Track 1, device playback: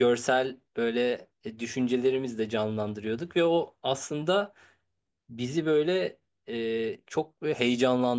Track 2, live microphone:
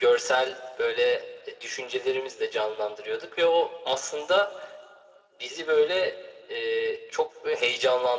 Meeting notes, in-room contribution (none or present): none